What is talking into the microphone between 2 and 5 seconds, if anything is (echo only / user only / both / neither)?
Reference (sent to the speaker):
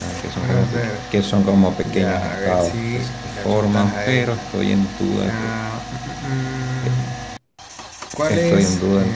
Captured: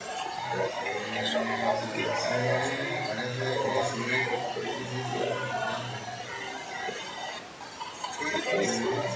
both